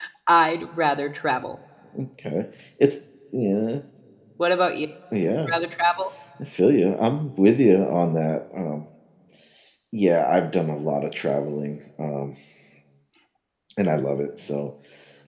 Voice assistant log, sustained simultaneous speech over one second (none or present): none